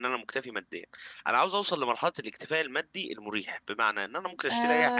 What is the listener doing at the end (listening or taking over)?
taking over